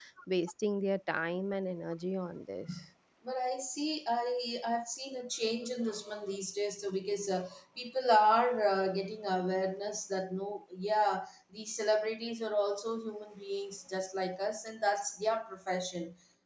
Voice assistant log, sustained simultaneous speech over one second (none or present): none